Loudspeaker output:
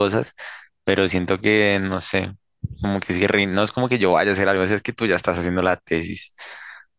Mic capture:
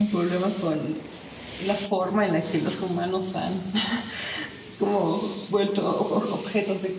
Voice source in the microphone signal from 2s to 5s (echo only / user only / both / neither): user only